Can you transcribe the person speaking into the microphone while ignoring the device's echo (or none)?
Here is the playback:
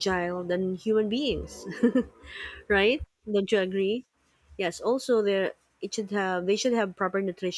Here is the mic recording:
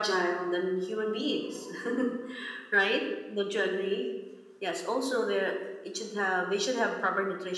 none